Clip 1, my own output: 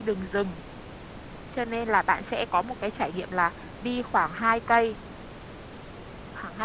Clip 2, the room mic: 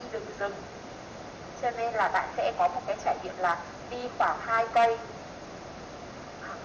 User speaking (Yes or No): No